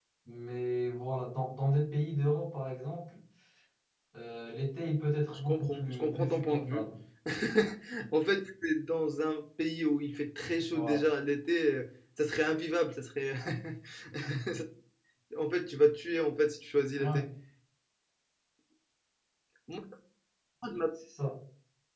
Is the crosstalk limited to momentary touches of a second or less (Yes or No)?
No